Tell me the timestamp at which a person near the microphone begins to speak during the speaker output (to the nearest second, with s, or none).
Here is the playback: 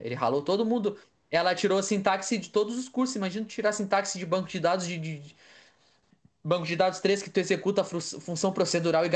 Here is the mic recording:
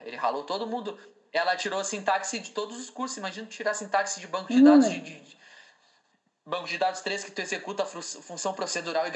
5 s